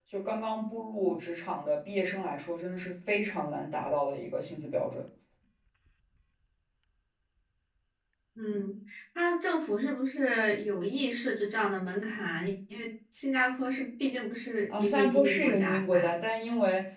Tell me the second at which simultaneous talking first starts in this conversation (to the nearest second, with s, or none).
15 s